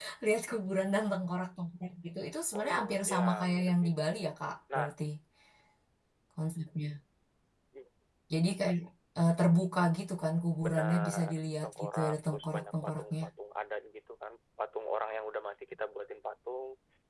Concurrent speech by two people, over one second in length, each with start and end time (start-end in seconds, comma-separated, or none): 2.6-4.2, 10.6-13.2